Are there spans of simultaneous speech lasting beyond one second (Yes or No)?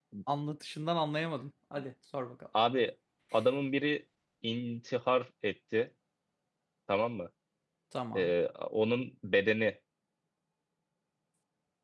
No